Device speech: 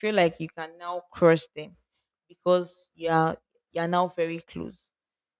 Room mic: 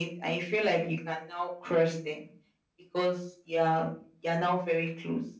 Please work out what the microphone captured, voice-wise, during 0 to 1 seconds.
echo only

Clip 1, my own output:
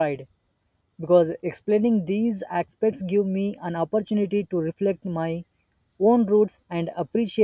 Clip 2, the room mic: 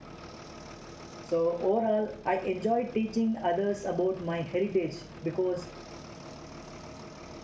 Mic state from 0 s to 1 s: neither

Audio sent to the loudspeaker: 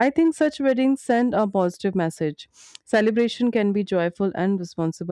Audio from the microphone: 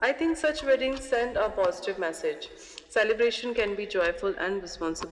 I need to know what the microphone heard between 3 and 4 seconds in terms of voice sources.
echo only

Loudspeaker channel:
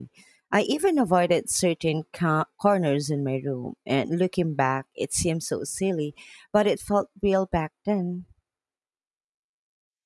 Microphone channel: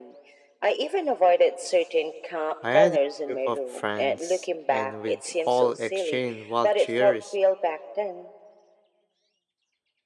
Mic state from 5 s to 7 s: both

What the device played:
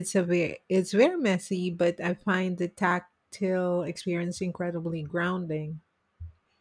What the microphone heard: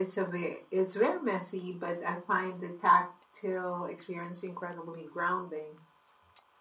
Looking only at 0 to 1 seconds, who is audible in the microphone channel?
echo only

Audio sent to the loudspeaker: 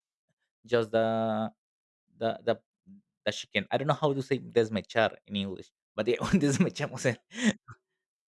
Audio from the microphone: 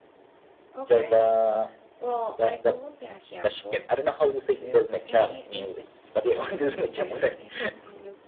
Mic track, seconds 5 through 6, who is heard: both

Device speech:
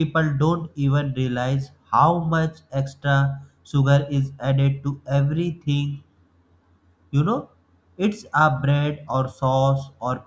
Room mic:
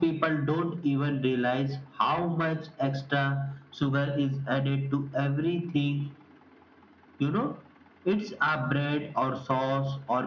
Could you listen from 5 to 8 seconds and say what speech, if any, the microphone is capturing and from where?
echo only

